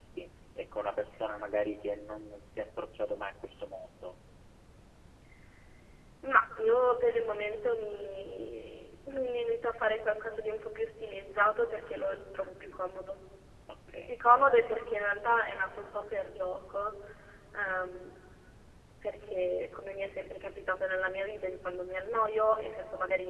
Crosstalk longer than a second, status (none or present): none